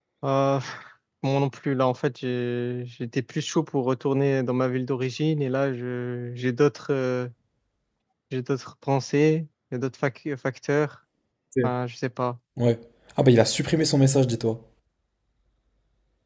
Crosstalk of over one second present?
No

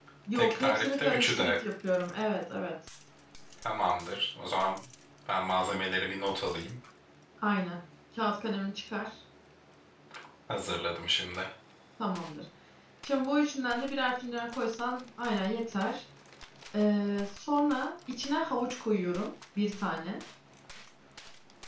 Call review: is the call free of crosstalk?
No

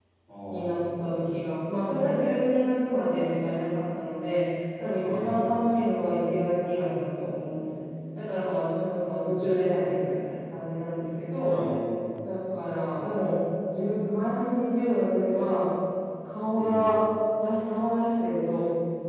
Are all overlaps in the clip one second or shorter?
Yes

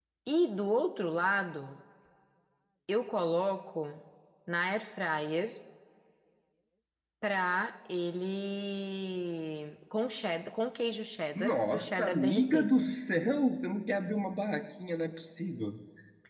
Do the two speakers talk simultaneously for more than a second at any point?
Yes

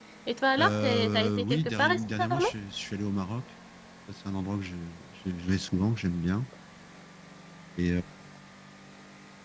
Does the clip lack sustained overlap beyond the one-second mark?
No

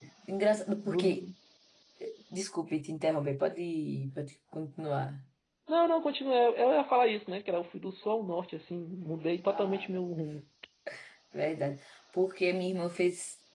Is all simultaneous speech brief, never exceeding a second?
Yes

